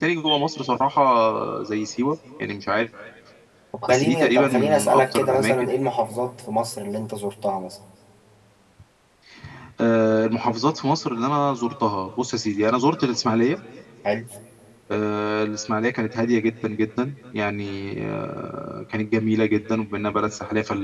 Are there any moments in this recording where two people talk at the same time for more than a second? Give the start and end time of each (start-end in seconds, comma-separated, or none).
3.9-5.7